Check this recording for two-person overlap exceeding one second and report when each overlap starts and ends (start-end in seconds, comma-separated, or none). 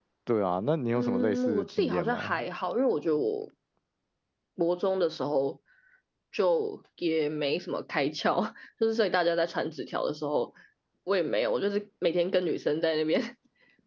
0.9-2.4